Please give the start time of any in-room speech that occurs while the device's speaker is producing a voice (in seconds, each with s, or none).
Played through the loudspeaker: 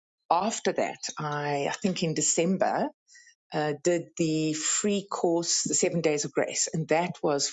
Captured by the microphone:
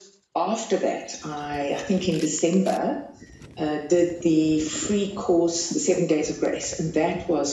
none